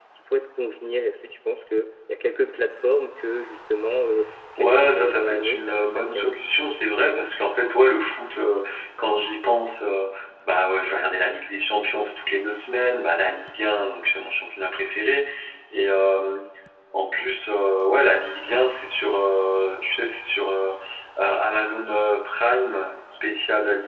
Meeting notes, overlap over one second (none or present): present